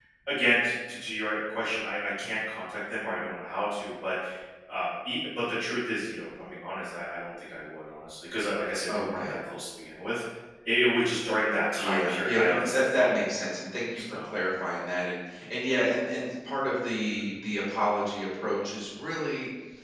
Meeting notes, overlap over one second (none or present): present